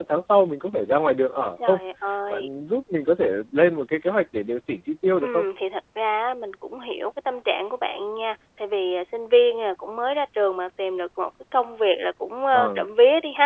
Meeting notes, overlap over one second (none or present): none